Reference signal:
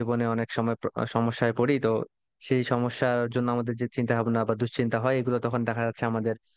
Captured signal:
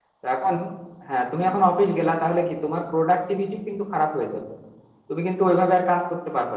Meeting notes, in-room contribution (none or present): present